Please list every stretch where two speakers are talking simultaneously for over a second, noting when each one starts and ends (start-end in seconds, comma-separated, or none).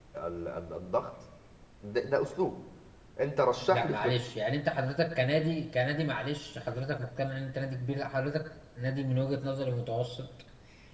none